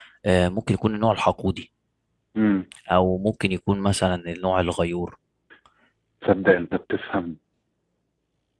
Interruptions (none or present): none